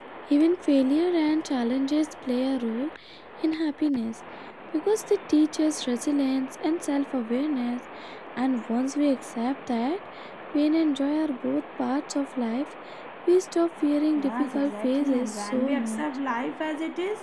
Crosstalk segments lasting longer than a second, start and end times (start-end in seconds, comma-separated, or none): 14.2-16.0